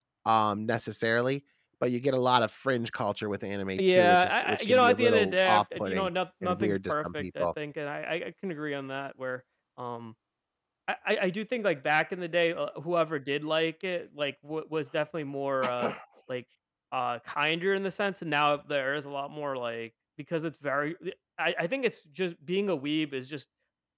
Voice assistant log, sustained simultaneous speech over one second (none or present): present